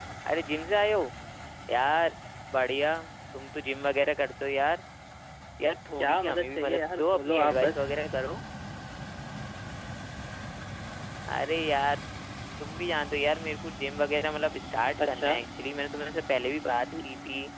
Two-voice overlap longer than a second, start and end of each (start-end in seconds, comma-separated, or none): 6.0-7.8